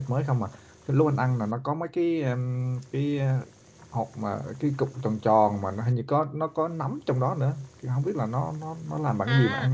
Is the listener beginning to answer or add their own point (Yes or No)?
Yes